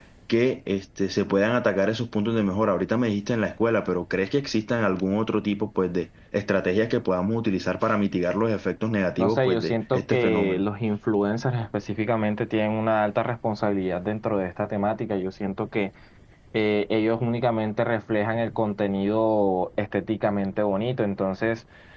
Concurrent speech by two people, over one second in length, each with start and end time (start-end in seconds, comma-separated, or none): 9.2-10.6